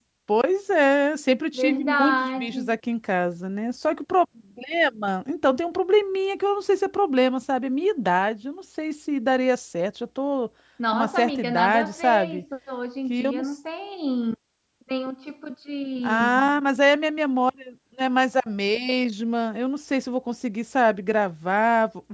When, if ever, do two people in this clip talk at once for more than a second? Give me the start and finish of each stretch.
1.5-2.7, 10.9-12.4

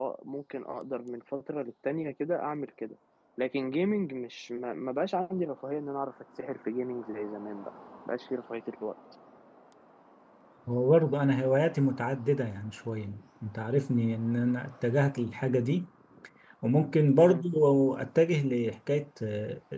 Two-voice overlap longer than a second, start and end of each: none

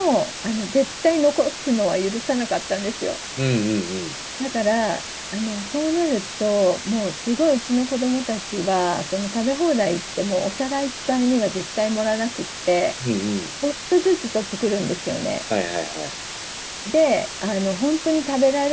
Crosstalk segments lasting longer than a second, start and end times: none

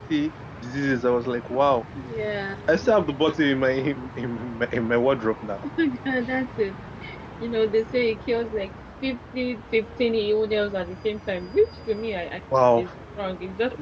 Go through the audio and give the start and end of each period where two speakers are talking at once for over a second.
none

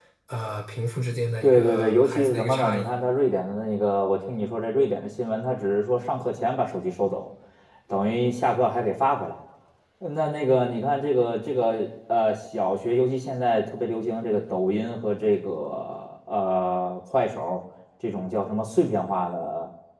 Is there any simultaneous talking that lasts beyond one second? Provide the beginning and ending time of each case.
1.4-2.9

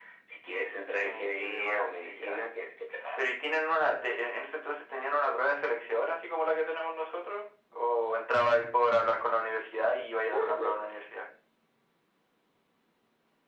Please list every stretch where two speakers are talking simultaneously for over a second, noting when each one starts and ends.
1.0-2.4

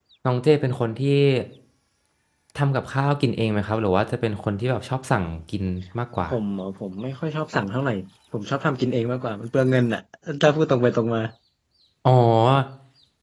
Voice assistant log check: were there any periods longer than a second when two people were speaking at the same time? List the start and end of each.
none

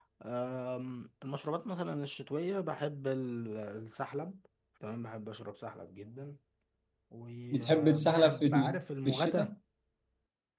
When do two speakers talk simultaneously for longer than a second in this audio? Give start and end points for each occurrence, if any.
7.5-9.5

